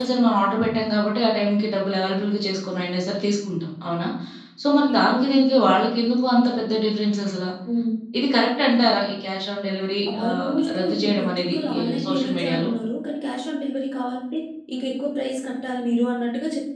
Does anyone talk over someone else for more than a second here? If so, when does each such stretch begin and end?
10.2-12.7

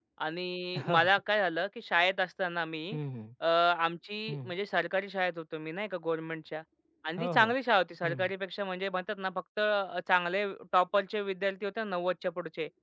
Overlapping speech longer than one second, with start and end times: none

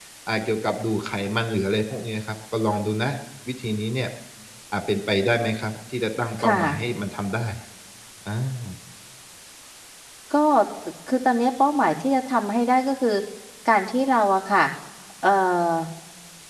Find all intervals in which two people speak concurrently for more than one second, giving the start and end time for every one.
none

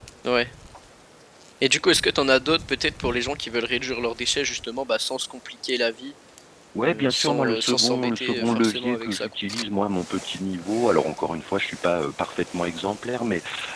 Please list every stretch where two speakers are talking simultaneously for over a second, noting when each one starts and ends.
6.9-9.3

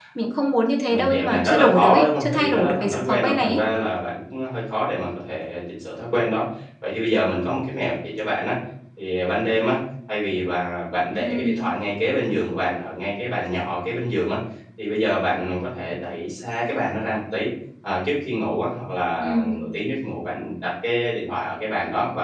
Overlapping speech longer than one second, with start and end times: 0.9-3.6

